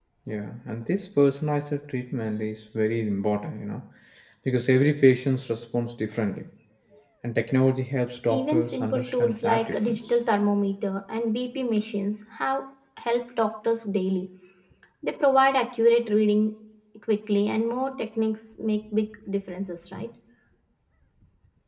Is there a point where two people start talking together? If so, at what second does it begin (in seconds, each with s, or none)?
8.3 s